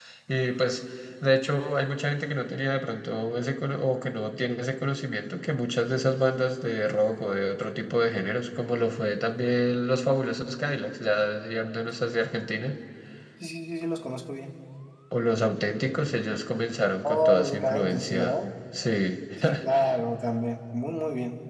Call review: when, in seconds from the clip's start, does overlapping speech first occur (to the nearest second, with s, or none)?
17 s